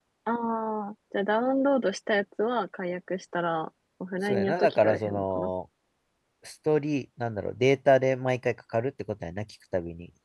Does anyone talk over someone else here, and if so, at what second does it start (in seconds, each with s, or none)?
4.2 s